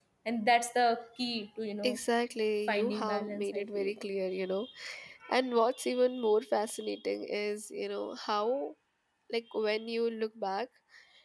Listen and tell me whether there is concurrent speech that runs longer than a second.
Yes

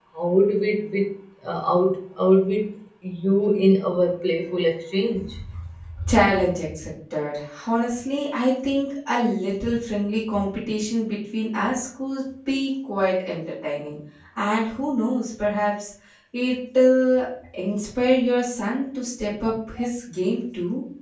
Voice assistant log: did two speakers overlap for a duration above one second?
No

